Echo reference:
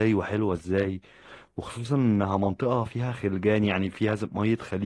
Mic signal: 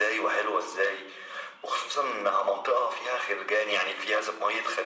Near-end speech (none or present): none